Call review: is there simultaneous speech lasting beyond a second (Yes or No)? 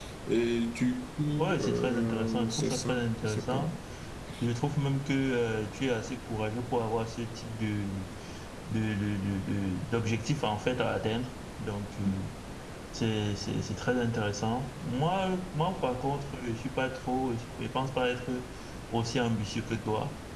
Yes